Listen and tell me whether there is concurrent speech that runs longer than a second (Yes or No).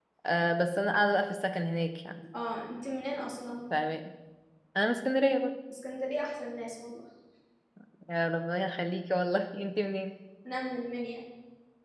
No